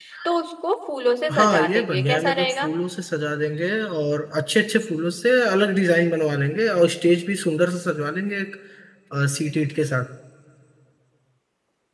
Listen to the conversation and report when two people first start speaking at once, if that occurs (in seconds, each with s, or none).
1.3 s